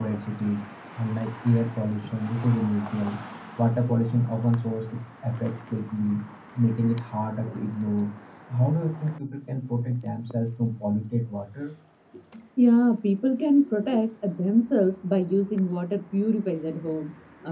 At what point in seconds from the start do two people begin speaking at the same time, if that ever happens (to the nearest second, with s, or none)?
none